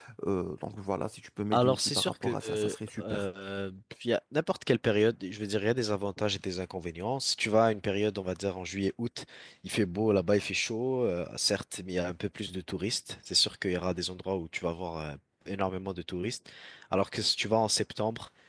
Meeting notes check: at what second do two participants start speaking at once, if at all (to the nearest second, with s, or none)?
2 s